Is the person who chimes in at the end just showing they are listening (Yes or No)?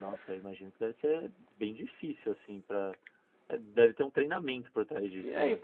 No